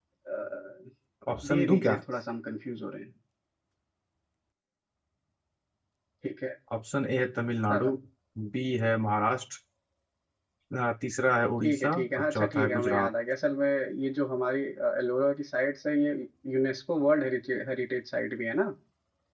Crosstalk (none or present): present